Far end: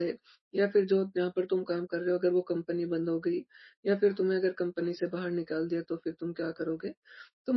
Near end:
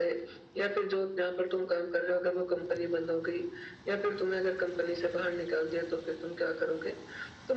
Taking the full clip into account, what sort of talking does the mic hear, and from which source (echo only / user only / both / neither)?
echo only